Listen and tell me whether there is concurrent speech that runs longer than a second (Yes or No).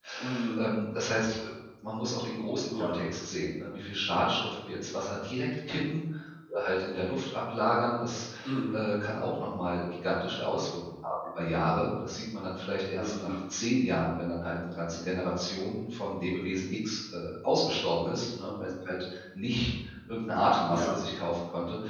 No